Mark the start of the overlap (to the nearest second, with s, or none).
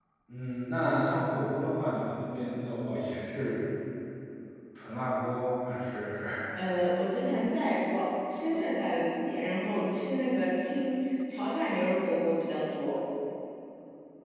none